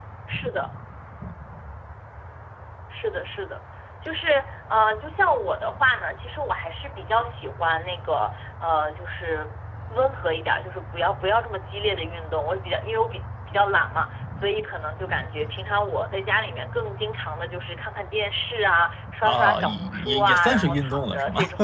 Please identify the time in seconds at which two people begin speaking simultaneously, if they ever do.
19.2 s

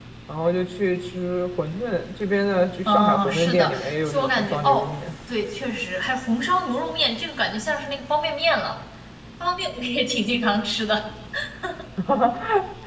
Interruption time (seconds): 2.9 s

